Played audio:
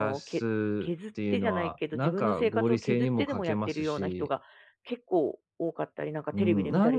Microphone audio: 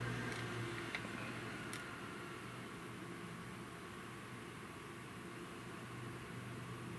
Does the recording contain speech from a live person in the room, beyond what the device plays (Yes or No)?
No